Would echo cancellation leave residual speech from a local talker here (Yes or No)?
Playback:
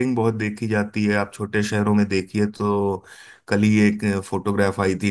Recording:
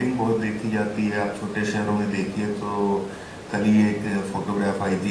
No